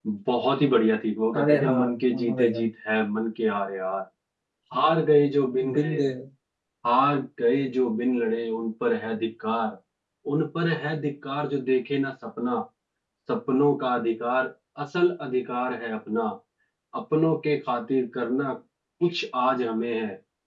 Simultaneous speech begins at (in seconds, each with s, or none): 1.4 s